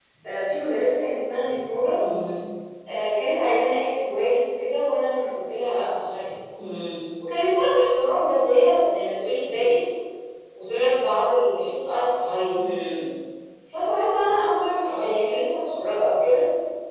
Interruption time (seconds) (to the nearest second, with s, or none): none